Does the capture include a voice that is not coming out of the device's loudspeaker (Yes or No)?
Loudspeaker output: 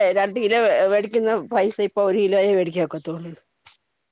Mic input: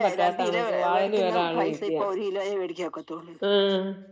Yes